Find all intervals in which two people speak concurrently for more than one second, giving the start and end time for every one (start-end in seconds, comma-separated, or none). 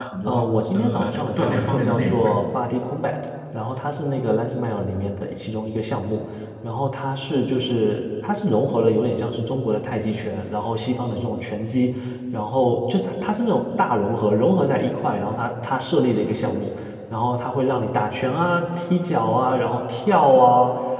0.7-2.4